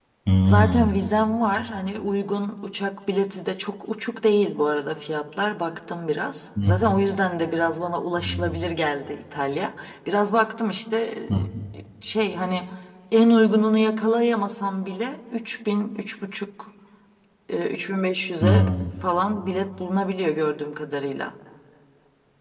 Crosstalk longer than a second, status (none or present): none